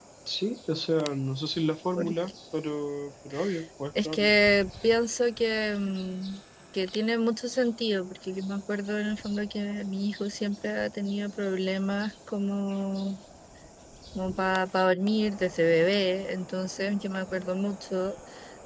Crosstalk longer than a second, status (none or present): none